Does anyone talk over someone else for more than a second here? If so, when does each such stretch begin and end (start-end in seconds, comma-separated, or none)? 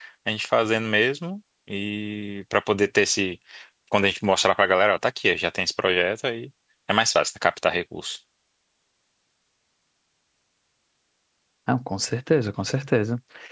none